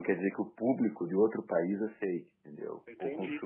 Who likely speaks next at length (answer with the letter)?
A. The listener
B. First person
A